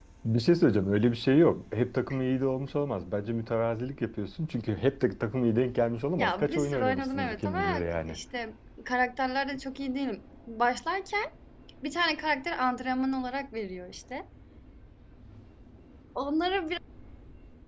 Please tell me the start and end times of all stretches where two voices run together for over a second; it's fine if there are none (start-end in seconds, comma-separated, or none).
6.2-8.2